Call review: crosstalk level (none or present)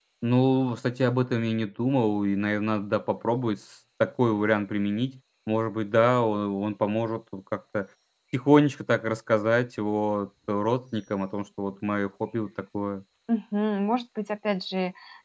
none